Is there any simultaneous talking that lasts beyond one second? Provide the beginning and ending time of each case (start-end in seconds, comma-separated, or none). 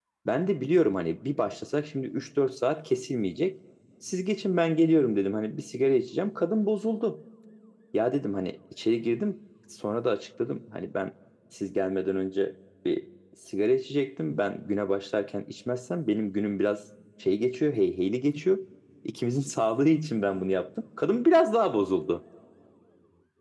none